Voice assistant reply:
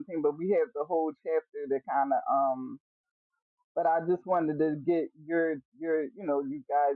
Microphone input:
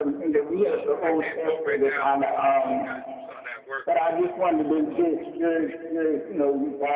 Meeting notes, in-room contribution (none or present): present